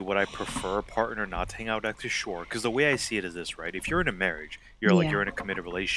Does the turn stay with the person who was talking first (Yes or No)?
Yes